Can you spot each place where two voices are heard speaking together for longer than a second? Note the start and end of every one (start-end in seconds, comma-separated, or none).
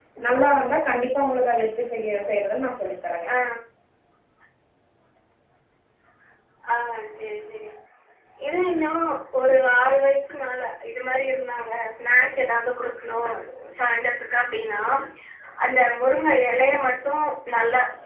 none